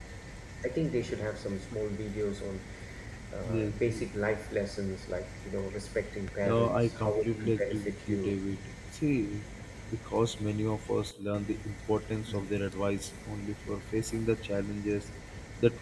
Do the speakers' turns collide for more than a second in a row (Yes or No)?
Yes